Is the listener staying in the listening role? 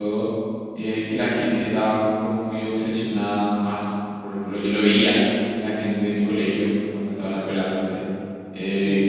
Yes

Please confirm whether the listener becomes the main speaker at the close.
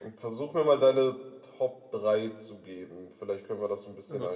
Yes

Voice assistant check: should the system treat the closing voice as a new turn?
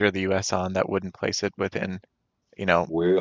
No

